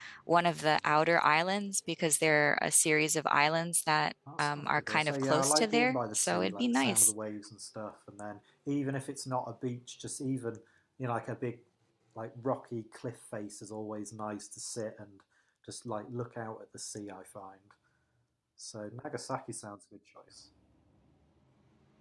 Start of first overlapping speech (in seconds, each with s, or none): 4.3 s